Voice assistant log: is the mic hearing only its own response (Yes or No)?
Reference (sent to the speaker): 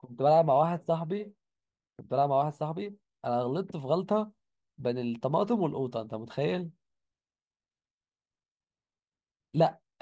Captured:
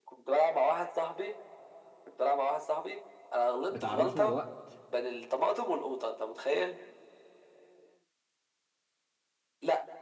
No